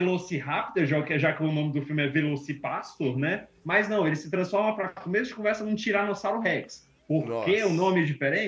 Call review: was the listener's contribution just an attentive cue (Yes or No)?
Yes